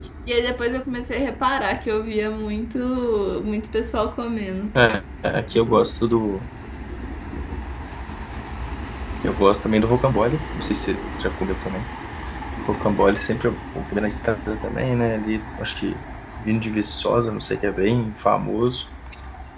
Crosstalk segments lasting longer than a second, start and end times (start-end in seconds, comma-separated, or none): none